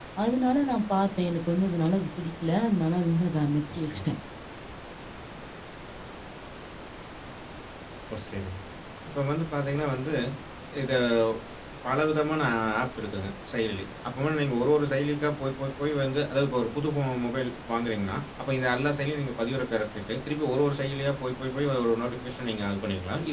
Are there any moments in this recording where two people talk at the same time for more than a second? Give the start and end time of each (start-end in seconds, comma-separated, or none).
none